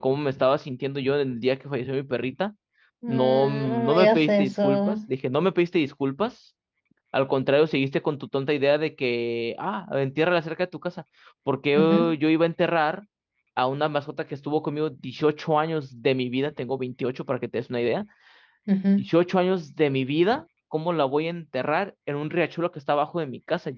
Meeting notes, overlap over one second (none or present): present